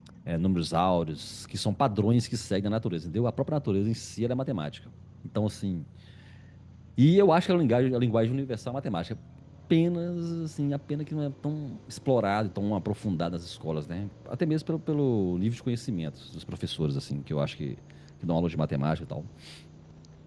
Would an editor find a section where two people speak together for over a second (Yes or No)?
No